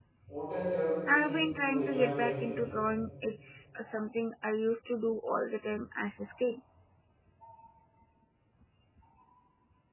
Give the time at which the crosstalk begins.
1 s

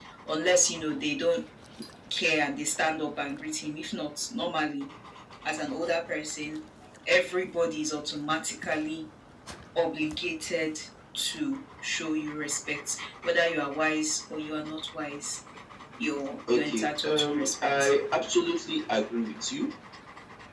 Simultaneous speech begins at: 17 s

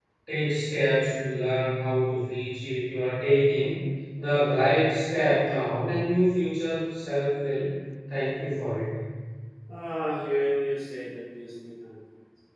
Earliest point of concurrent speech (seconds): none

